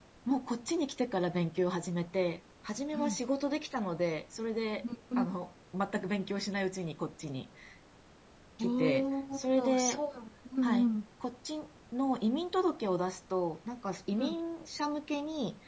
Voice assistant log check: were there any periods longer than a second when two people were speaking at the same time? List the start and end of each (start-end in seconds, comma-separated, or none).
8.6-10.0